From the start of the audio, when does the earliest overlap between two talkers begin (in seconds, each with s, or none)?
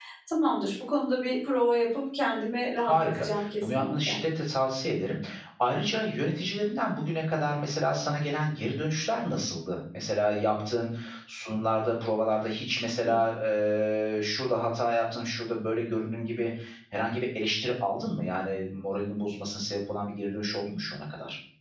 2.8 s